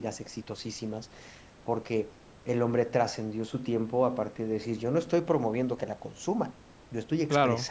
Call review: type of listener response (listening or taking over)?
listening